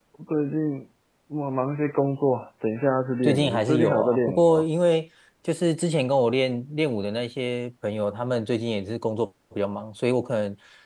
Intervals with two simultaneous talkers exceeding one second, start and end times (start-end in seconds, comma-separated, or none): 3.2-4.6